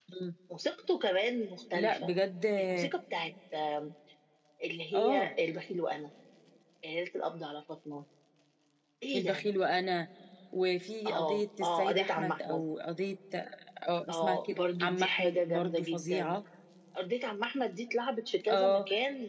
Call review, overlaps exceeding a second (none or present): present